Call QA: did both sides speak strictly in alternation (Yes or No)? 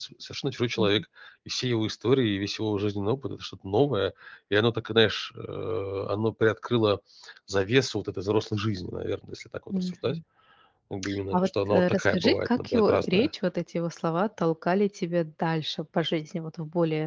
No